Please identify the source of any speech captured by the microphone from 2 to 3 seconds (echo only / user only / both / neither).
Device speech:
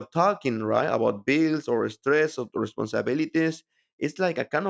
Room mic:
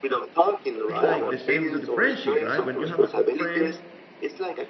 both